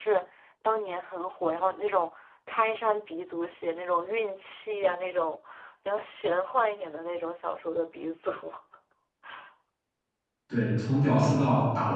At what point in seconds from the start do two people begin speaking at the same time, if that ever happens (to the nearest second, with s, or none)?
none